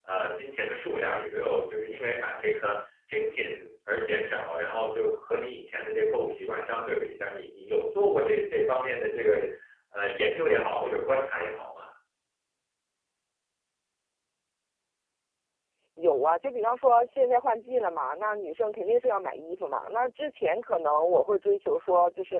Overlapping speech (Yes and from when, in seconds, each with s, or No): No